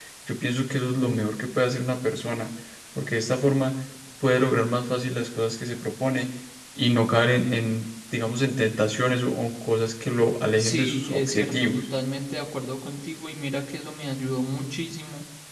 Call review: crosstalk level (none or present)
present